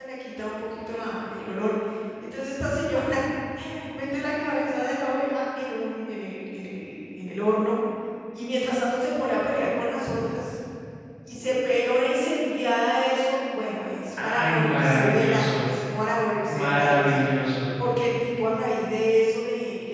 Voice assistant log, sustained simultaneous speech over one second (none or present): present